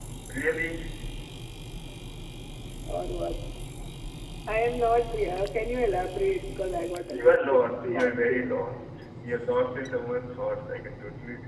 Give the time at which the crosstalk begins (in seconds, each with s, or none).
7.1 s